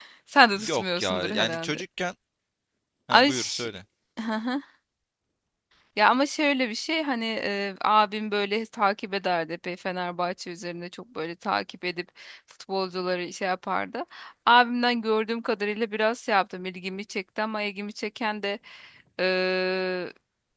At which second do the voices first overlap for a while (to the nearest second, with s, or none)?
1 s